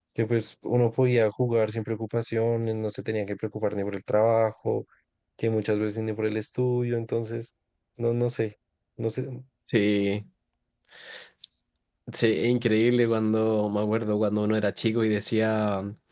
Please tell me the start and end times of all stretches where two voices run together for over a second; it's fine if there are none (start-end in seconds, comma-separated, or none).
none